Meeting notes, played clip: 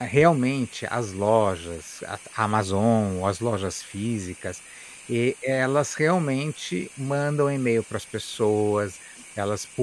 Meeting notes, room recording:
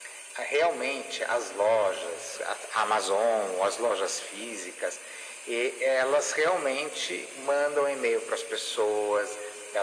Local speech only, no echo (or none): none